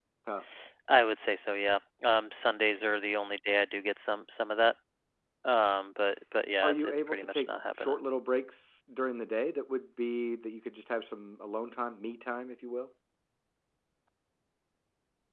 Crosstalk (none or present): present